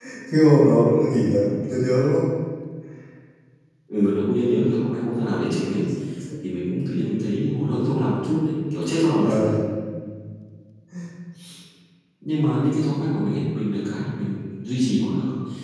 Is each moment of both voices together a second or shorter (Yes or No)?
Yes